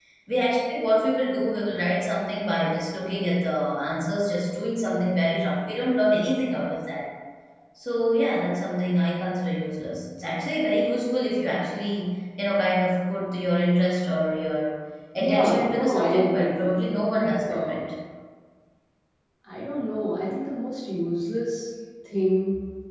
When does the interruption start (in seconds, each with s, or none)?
15.2 s